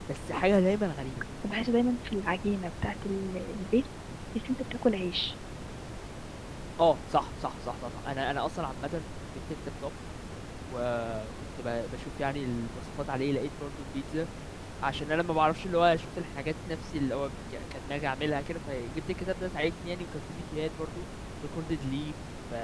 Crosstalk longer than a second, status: none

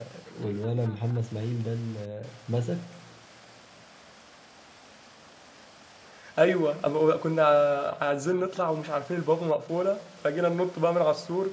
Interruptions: none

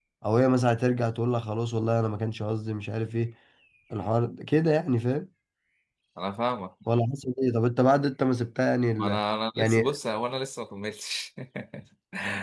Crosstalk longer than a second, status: none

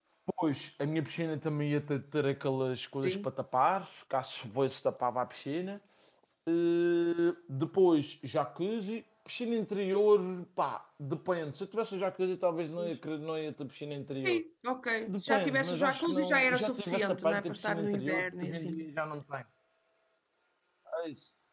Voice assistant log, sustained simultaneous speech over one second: present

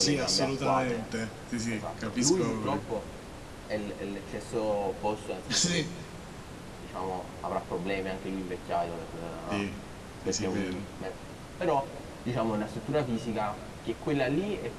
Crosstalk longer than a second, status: present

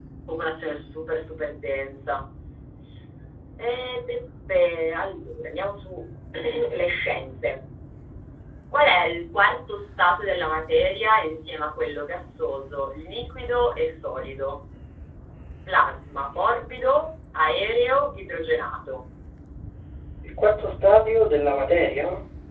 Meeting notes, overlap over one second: none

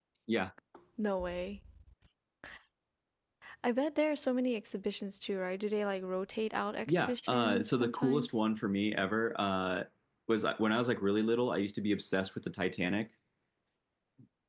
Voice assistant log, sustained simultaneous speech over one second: present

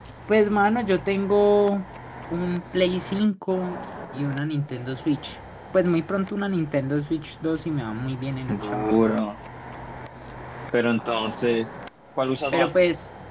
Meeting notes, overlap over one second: none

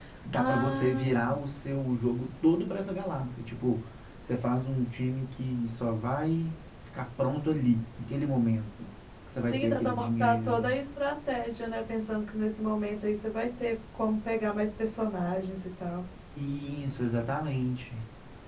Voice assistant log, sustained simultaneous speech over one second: present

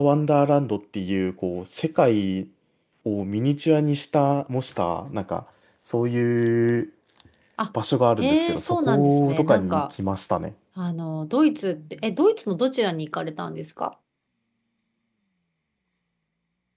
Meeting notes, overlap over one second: present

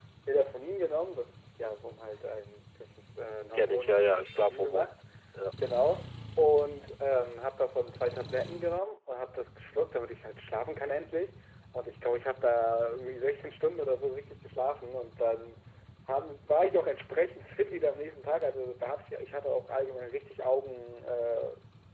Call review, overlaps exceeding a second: present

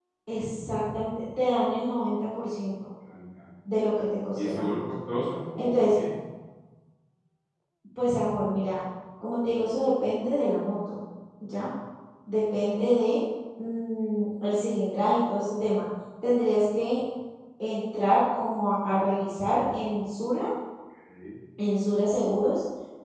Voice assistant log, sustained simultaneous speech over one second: none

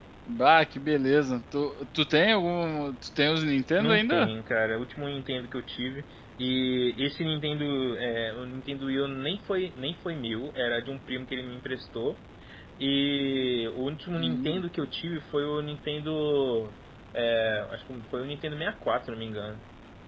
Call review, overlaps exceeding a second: none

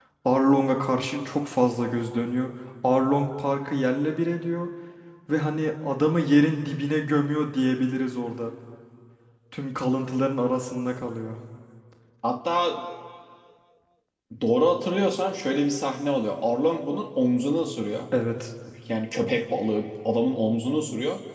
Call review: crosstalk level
none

